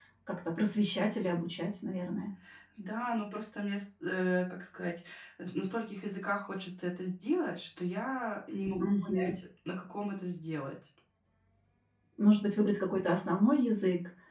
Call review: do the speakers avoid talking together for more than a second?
Yes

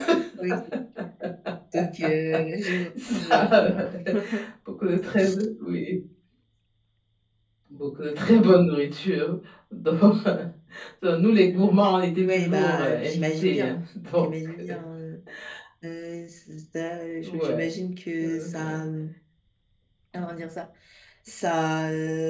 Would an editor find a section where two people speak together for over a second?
Yes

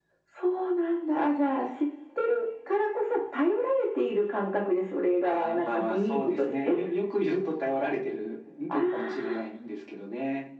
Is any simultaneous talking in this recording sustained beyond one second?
Yes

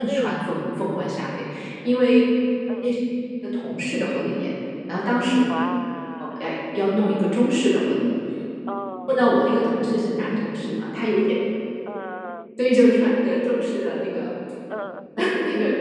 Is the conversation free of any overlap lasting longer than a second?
Yes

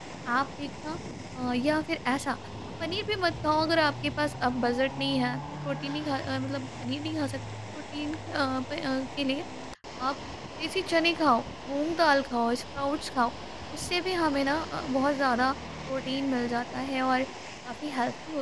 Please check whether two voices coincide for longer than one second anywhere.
No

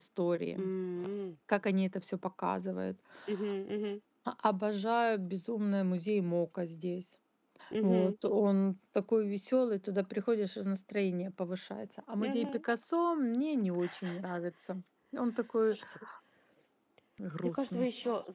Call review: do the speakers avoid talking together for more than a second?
Yes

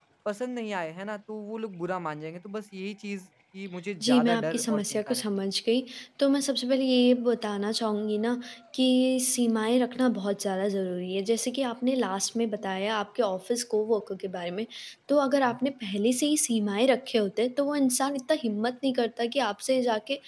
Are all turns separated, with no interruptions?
No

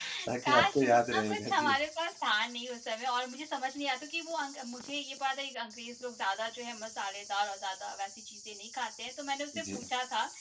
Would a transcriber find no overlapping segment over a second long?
No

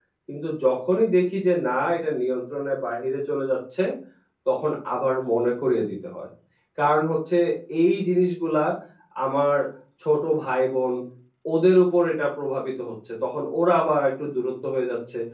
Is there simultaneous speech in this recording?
No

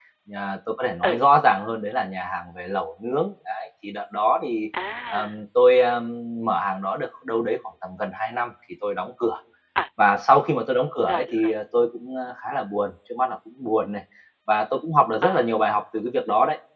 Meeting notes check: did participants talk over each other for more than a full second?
No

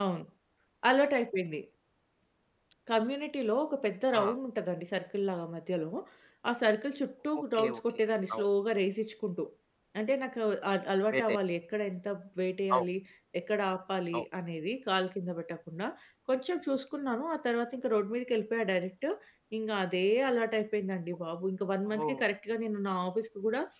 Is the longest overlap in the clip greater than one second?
No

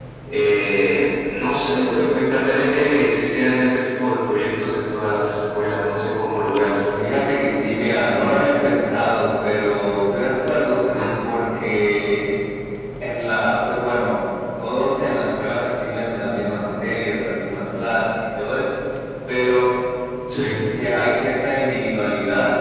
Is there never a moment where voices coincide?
Yes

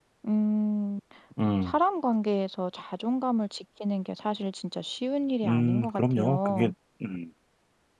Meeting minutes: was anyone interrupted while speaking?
Yes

